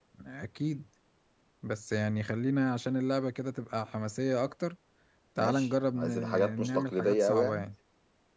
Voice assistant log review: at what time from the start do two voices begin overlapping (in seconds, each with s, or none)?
5.4 s